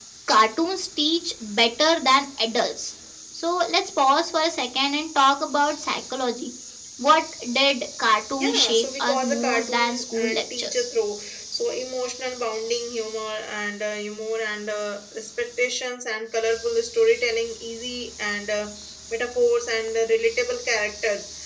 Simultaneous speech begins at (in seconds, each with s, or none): 8.3 s